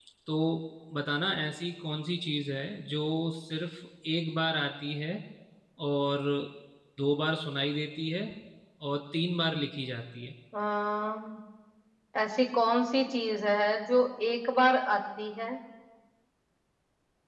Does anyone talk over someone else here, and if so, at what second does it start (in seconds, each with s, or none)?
none